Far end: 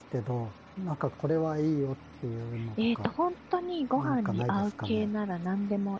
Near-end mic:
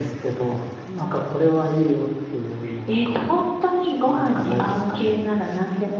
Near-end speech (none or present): none